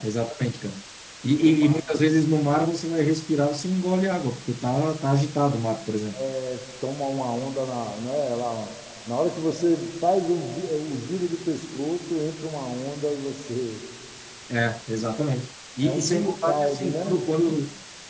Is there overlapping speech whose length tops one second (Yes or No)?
Yes